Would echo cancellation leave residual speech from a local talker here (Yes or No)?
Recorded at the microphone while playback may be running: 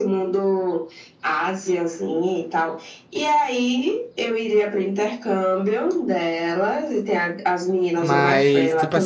Yes